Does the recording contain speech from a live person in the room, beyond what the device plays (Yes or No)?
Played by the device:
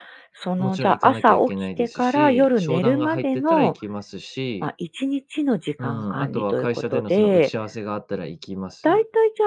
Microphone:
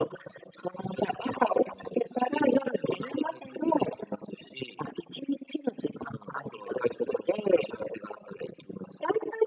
No